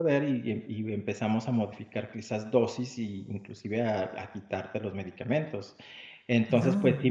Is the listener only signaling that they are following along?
Yes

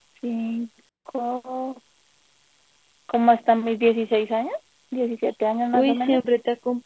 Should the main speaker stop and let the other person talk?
Yes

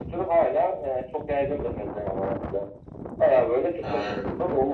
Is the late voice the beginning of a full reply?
No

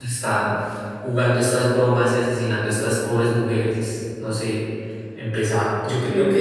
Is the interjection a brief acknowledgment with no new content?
Yes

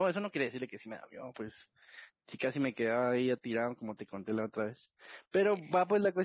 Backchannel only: Yes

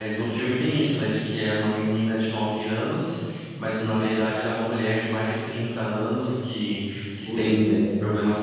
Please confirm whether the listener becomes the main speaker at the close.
No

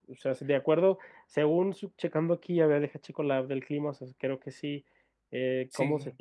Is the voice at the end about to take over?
No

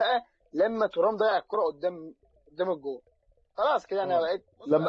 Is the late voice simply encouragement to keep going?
No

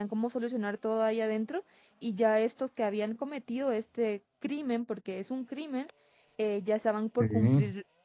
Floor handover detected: No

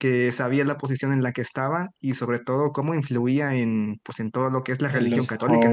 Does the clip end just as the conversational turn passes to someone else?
Yes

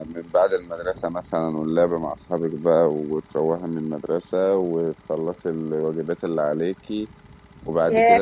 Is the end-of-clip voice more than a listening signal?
Yes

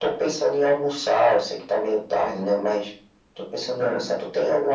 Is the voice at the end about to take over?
No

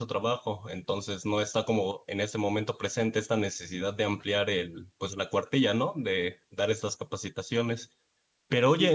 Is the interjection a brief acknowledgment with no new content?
Yes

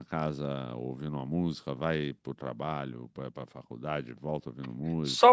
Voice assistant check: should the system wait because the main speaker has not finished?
No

